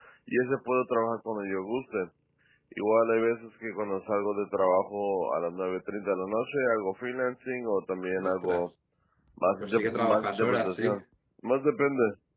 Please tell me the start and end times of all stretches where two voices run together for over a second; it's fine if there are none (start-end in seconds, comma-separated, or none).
9.6-11.0